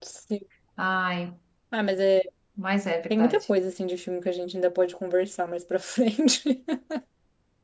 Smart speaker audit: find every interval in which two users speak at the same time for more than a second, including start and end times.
none

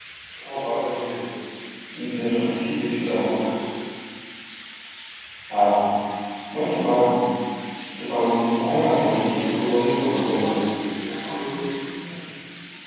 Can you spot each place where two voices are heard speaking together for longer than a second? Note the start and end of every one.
9.1-10.5

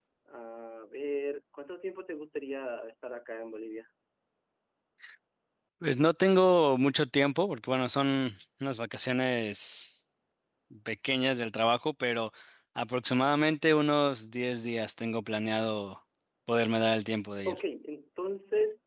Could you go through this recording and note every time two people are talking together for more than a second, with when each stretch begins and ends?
none

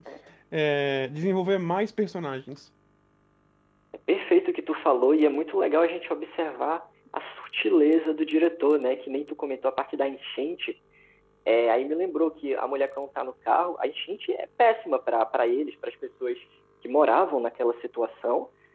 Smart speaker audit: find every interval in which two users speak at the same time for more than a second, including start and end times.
none

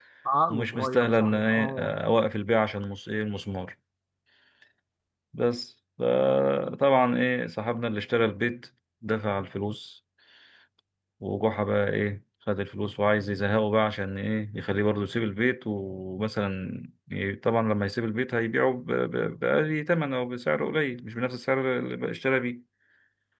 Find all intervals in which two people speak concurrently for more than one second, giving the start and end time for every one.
0.5-2.0

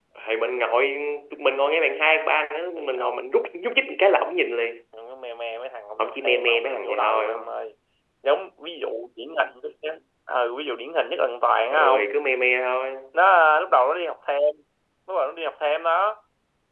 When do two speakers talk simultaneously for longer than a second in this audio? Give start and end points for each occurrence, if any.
6.0-7.6

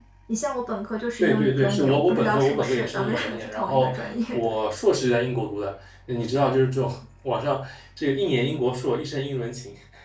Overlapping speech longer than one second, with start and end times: 1.2-3.9

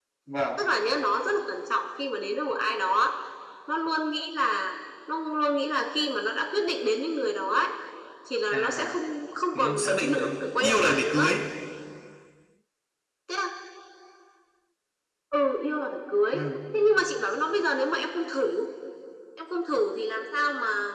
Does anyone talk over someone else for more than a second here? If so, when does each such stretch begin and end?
9.6-11.3

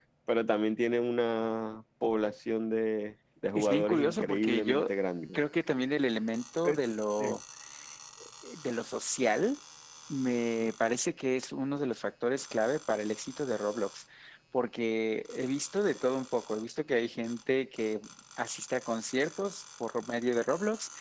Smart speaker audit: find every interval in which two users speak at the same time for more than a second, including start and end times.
3.5-4.8

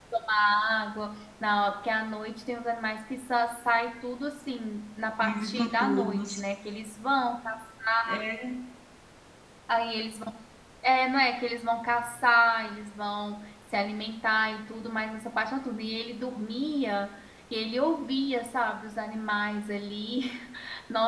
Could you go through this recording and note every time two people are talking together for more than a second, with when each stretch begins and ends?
5.2-6.4

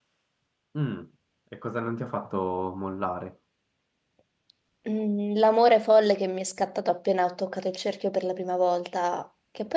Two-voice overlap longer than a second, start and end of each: none

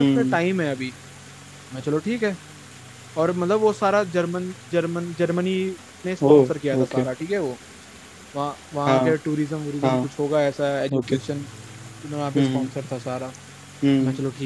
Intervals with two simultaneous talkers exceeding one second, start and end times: none

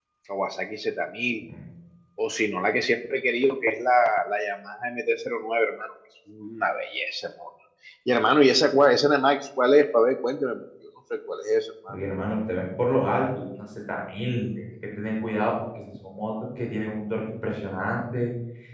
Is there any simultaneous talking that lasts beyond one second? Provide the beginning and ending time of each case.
none

